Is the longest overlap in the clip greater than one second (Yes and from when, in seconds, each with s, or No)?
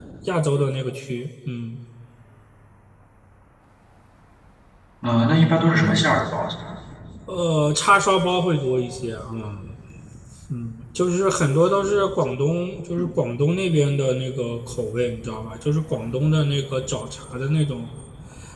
No